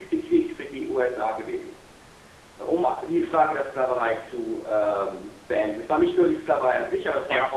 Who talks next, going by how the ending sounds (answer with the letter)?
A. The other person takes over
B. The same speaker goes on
A